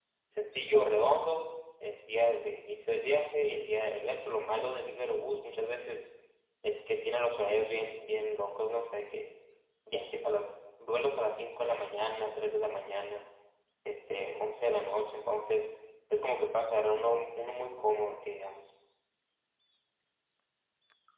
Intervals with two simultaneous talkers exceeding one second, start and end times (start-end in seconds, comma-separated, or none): none